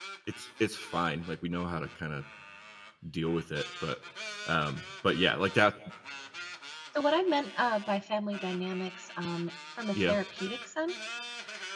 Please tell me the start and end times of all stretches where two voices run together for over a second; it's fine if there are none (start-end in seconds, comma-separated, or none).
none